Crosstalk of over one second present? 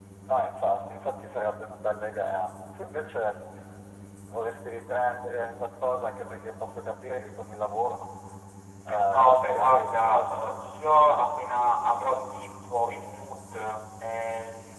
Yes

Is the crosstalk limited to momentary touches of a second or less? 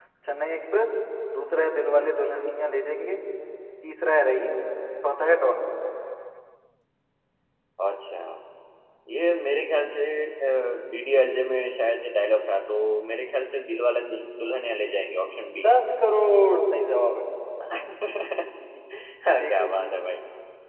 Yes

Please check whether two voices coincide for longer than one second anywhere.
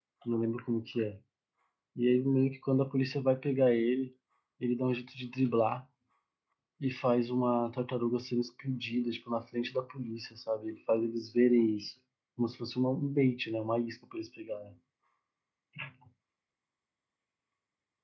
No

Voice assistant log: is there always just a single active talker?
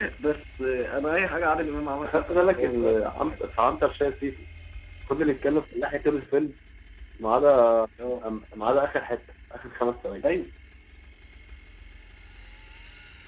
No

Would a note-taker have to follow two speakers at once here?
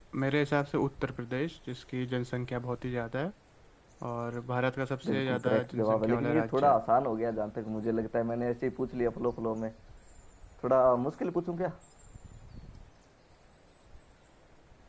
Yes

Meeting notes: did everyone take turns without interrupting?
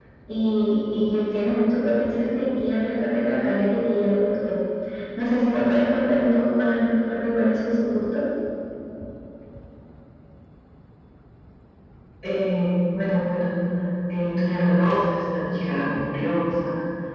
Yes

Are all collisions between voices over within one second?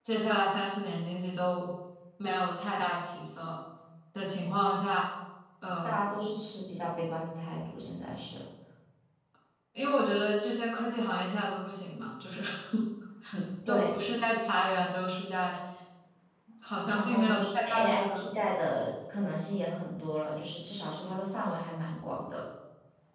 No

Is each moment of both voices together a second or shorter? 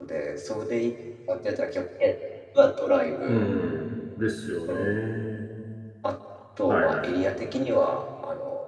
Yes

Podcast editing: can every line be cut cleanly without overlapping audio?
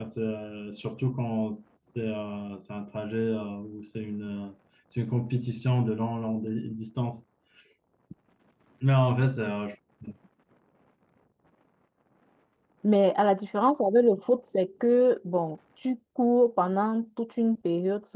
Yes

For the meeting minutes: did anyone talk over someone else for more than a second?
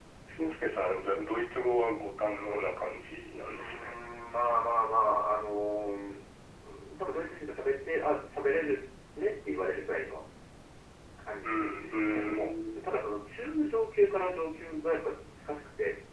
Yes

